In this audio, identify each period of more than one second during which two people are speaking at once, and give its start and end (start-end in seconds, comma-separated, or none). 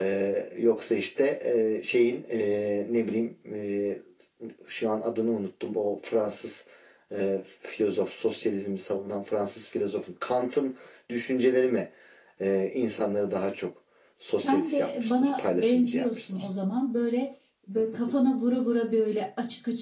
14.3-16.3